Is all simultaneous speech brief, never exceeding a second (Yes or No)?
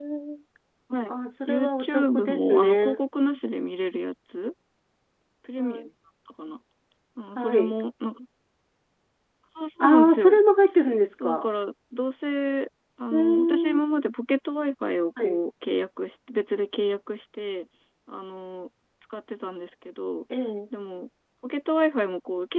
No